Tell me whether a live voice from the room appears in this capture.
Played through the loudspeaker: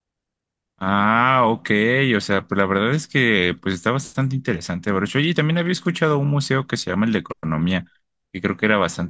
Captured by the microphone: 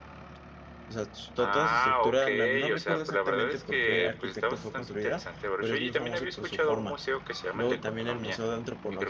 Yes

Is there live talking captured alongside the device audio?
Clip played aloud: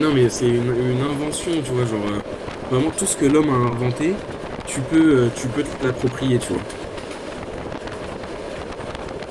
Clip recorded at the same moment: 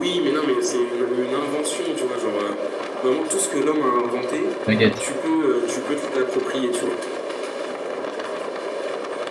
Yes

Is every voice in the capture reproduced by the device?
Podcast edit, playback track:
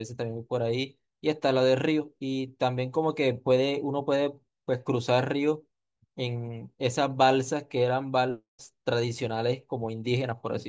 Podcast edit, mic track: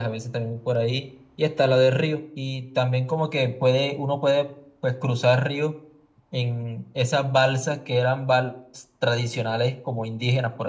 Yes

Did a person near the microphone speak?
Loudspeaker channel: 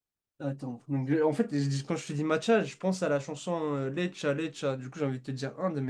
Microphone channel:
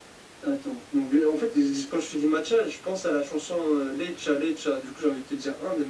No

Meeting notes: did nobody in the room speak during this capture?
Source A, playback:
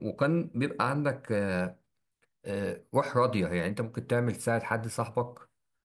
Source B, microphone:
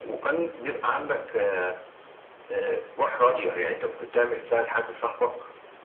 Yes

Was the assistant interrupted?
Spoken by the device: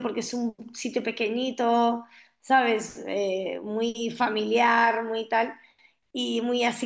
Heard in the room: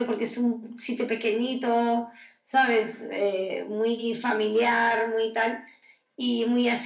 No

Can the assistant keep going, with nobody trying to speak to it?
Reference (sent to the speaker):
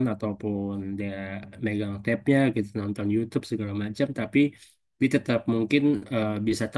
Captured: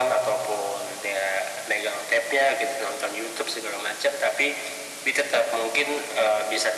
Yes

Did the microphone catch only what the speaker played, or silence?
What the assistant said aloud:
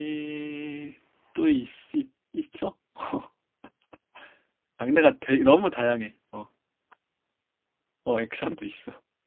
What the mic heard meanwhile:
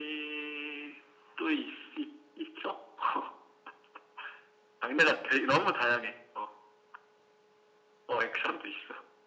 Yes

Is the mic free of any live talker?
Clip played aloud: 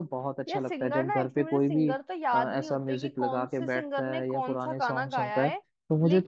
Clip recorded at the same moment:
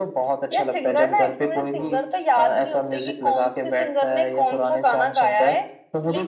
Yes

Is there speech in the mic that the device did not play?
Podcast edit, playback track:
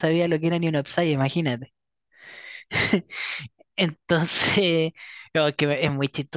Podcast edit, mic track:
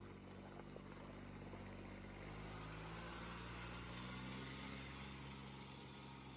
No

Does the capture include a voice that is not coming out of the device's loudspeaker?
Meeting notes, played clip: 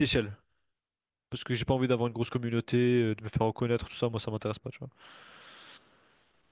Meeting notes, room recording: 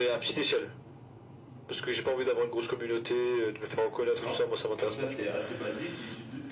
Yes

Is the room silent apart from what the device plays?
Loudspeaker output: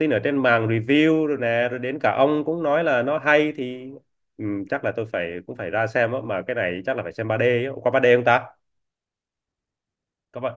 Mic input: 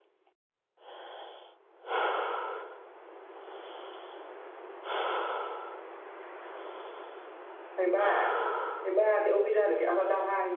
No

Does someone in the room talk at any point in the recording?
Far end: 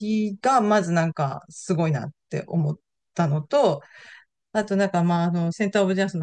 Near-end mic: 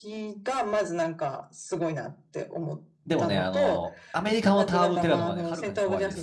Yes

